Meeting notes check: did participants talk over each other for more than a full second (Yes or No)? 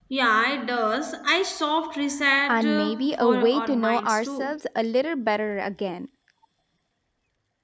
Yes